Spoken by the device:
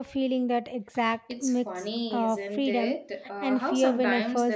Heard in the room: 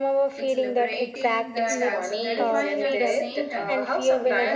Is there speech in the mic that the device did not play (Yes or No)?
Yes